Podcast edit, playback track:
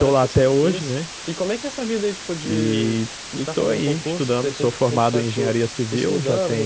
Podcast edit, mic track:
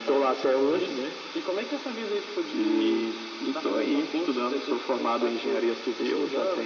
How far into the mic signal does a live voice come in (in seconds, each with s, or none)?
0.6 s